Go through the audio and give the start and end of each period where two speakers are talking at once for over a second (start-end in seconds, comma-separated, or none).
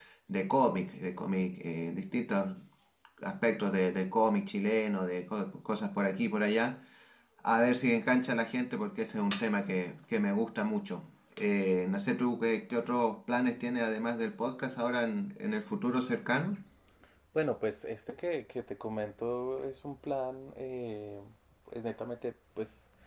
none